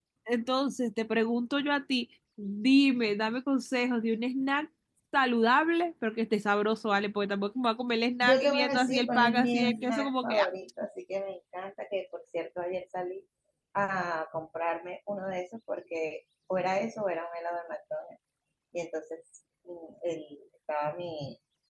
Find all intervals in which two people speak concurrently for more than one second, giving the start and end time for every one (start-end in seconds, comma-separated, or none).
8.2-10.5